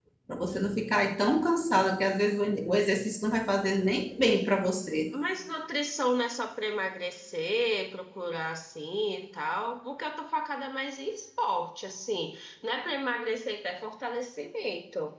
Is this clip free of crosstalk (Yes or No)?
Yes